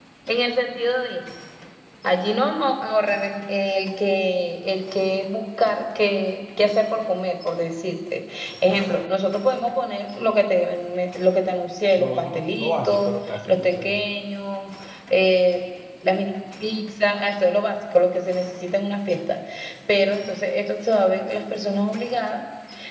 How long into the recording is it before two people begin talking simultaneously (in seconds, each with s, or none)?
12.0 s